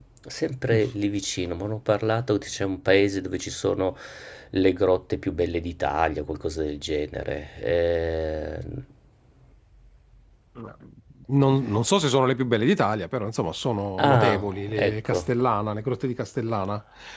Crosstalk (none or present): present